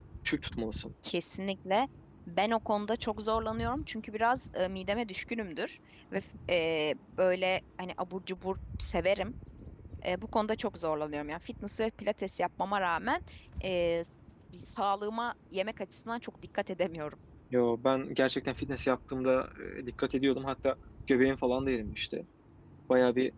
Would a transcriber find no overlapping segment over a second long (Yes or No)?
Yes